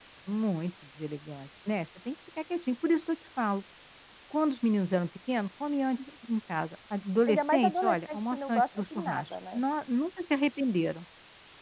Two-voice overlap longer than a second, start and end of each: 7.3-9.6

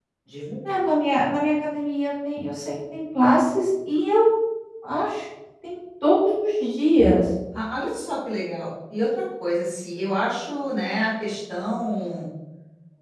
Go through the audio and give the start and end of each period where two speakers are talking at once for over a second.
none

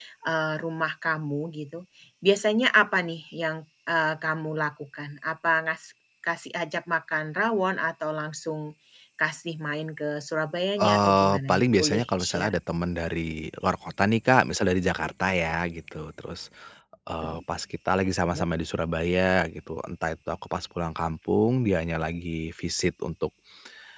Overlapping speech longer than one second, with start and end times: 10.8-12.5

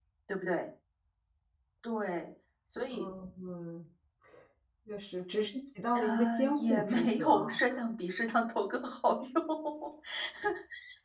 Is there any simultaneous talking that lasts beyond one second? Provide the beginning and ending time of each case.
5.9-7.6

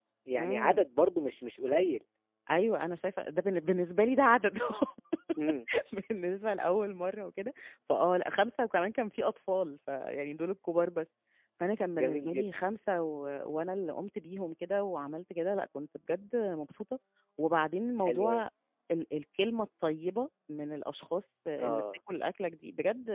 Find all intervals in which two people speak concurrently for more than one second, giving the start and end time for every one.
none

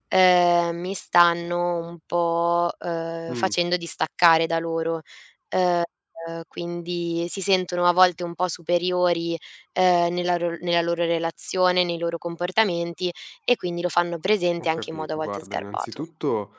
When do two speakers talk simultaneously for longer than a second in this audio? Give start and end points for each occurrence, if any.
14.6-16.0

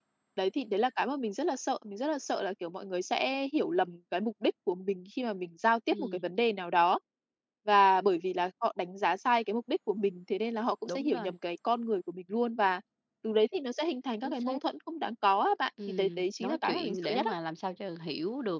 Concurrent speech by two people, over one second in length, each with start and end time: 15.9-17.3

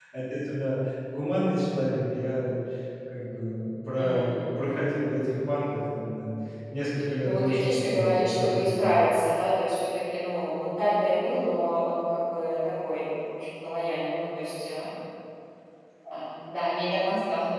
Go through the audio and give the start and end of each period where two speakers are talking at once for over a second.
7.2-8.9

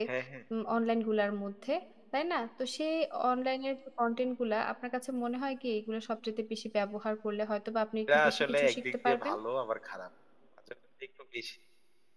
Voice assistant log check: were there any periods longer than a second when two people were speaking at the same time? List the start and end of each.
8.1-9.3

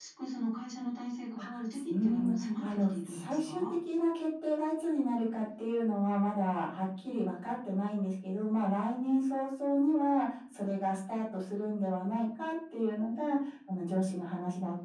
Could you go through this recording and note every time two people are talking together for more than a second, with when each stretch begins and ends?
2.0-3.6

